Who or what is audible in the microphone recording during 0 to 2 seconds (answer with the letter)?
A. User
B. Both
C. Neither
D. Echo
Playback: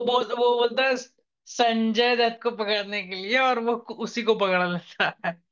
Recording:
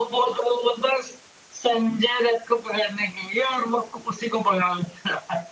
D